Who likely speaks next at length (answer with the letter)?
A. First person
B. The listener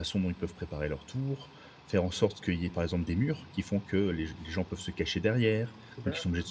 A